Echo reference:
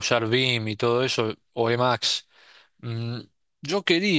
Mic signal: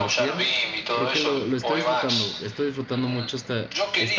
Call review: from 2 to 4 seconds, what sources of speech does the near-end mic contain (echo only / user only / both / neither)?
both